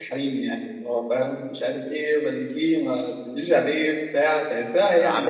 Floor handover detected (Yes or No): Yes